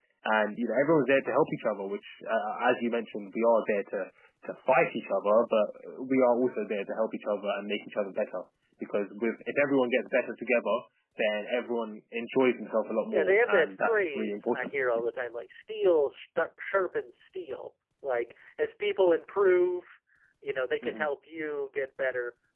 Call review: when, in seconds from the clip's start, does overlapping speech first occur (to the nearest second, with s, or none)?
13 s